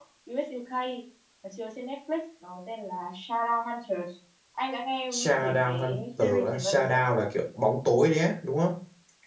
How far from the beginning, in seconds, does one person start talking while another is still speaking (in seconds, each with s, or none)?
5.2 s